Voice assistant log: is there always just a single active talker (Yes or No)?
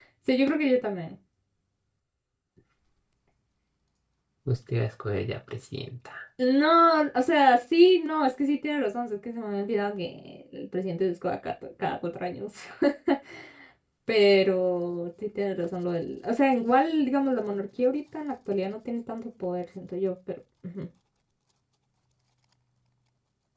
Yes